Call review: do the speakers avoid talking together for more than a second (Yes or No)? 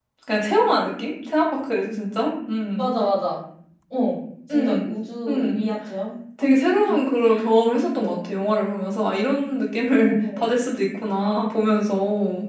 Yes